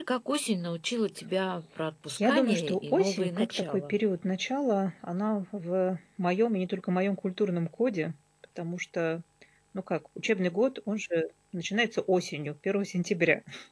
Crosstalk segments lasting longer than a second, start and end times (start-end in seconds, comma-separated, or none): 2.2-4.0